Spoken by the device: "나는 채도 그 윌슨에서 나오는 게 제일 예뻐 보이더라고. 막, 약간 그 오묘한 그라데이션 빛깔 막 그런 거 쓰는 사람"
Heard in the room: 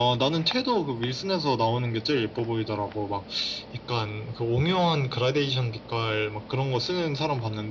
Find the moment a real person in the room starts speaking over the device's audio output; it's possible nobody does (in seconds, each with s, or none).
none